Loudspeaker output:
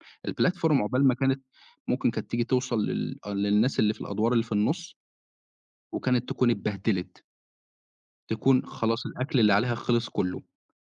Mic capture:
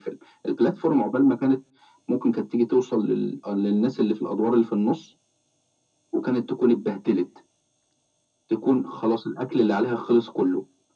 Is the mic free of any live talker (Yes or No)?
Yes